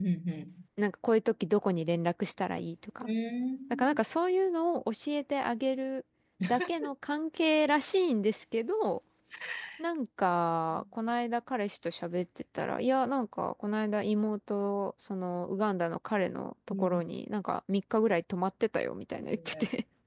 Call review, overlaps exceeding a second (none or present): none